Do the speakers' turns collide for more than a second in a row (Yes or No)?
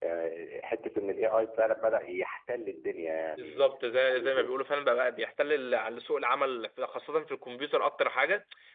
No